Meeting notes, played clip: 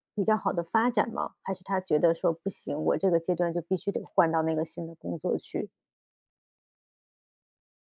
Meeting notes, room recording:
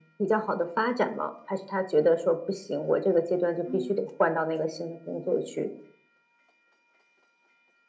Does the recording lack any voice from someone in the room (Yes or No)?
No